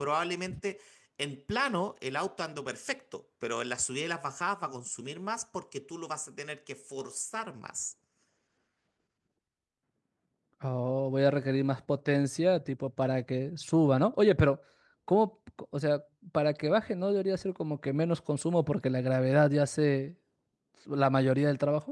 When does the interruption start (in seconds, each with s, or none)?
none